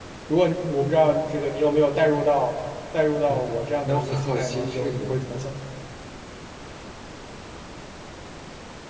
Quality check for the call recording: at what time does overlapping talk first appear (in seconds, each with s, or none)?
3.3 s